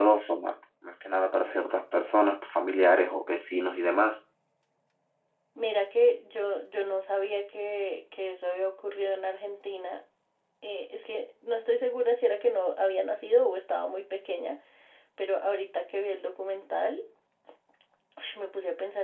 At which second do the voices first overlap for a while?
none

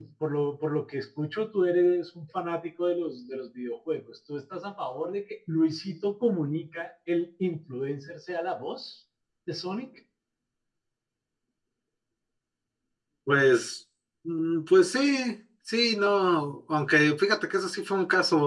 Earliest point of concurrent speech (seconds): none

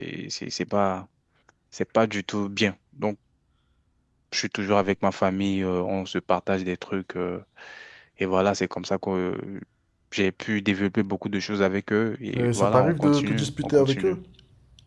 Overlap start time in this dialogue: 12 s

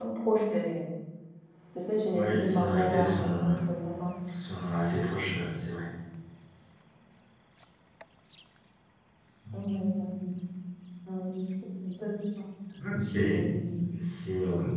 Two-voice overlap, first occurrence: 2 s

